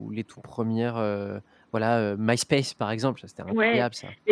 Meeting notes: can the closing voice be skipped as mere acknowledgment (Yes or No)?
No